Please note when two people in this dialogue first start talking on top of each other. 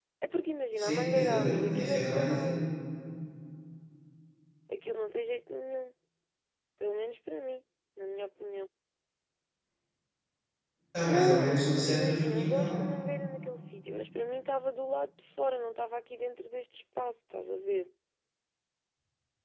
0.8 s

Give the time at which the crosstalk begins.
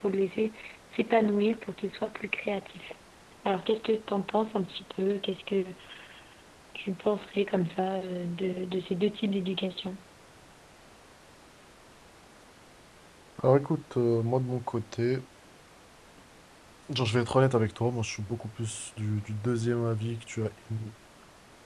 none

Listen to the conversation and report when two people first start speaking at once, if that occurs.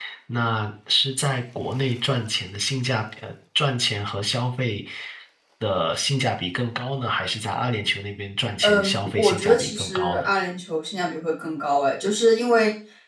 8.6 s

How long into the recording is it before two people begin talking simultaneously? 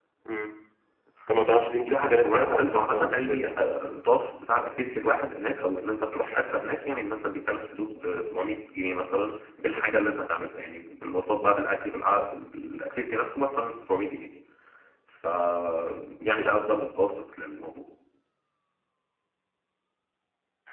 1.9 s

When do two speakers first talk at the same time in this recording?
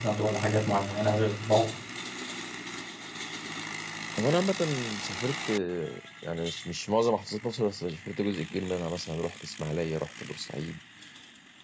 none

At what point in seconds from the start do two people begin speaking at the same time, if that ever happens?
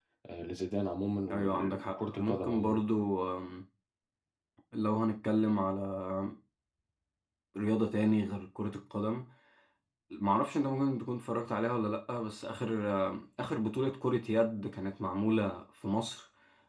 1.2 s

